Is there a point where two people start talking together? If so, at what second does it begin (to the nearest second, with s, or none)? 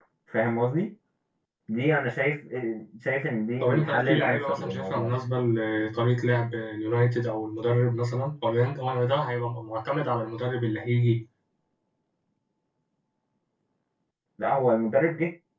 4 s